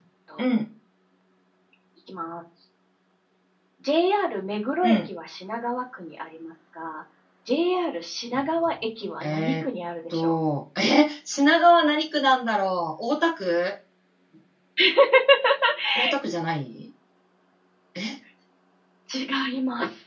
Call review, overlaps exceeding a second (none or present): none